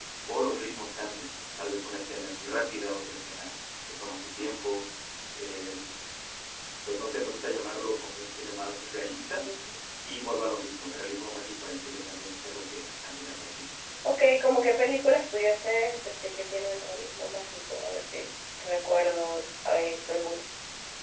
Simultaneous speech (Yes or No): No